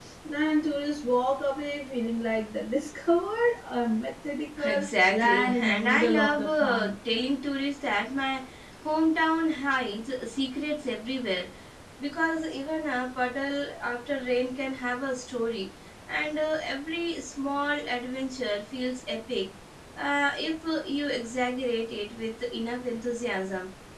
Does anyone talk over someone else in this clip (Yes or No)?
Yes